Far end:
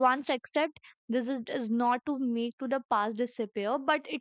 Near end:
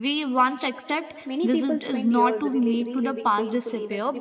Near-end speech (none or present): present